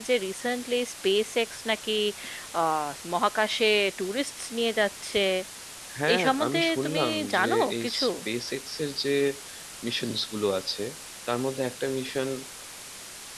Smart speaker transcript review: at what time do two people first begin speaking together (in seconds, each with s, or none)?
6.1 s